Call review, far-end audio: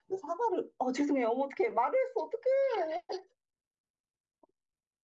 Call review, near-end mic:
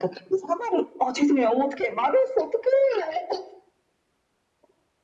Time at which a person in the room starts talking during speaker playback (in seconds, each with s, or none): none